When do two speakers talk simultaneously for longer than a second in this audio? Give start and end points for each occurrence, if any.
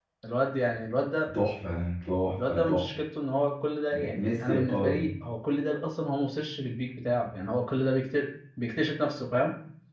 3.9-5.1

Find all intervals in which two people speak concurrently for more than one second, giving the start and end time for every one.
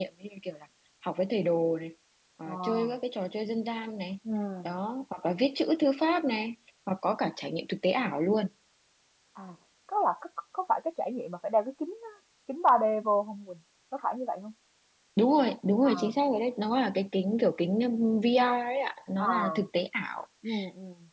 none

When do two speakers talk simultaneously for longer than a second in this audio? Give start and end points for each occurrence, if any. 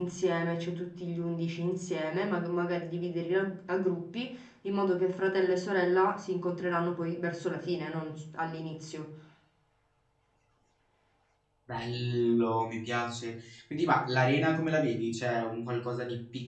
none

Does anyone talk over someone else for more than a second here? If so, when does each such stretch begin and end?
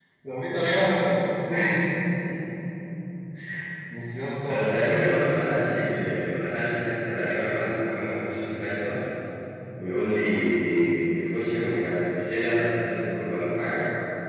none

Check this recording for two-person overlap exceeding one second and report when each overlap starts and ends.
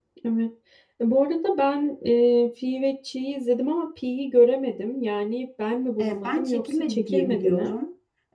6.0-7.7

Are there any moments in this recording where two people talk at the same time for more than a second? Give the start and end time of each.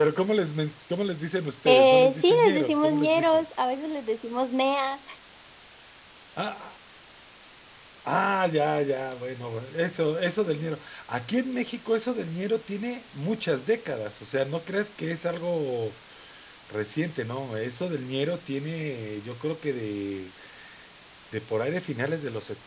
1.7-3.4

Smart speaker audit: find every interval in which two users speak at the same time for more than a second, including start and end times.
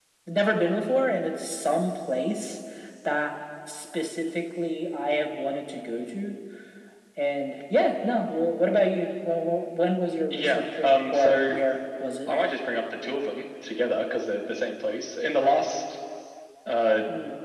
10.3-11.5

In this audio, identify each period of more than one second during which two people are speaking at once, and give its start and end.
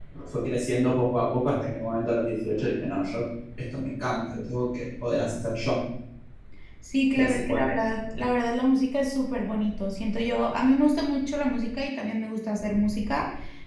none

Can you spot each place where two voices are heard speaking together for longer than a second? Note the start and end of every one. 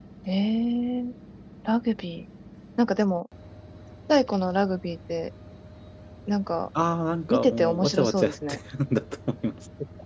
7.3-8.6

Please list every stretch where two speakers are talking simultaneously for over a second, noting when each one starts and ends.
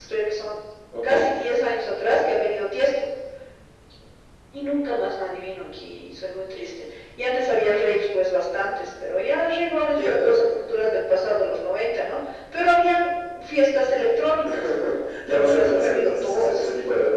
15.3-16.7

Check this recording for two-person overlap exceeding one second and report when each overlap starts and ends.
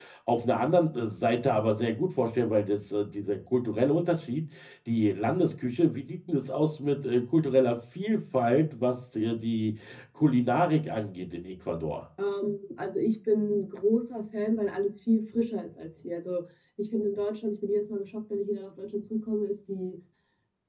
none

